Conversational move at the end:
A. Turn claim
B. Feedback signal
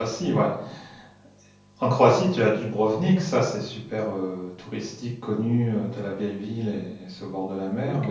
B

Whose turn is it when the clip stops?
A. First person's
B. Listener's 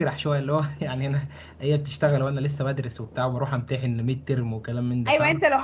B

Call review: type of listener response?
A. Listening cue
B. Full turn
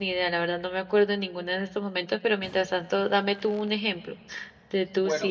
A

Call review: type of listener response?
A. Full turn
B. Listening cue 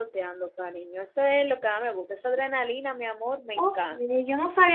A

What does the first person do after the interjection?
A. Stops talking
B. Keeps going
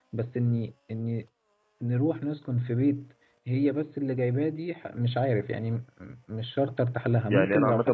A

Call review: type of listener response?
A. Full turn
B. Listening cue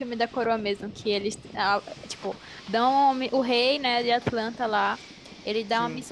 B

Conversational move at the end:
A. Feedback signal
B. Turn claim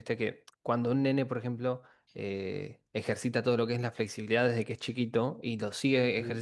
A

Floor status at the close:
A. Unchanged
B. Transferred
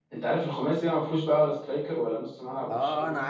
B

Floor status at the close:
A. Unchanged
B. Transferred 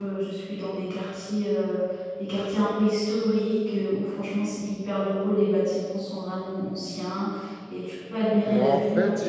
B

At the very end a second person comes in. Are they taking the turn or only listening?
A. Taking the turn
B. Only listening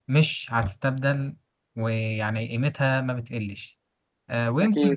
B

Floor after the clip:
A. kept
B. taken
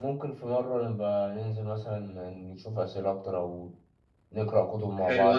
B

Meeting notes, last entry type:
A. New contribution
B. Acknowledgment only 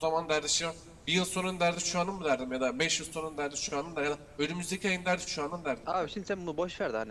A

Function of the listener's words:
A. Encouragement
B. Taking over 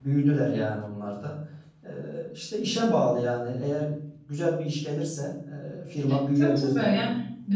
B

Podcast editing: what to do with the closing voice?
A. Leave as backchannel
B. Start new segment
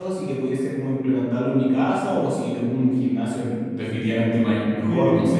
B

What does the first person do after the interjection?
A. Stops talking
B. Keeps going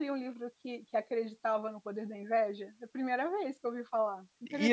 A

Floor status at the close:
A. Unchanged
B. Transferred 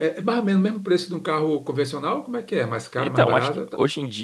B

